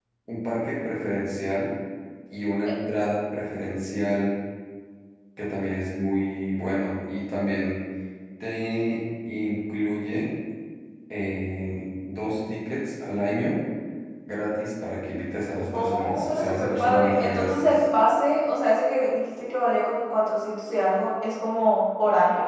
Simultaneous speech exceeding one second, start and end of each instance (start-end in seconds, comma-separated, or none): 15.7-17.8